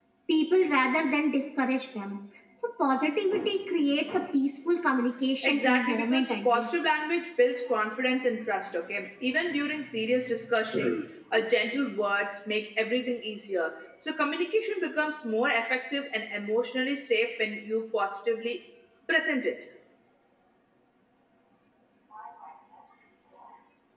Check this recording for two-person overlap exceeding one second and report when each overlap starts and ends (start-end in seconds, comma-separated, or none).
5.4-6.8